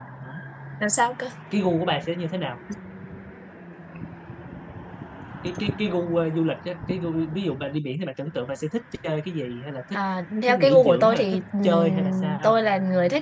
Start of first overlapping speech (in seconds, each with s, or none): 10.5 s